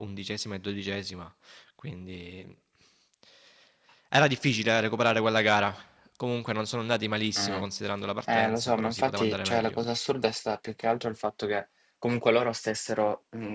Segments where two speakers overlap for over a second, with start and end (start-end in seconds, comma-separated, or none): 8.3-9.8